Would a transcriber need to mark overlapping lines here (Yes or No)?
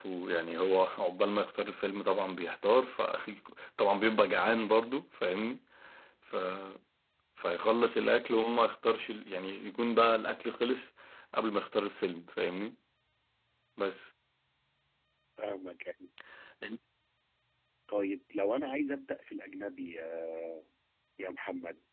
No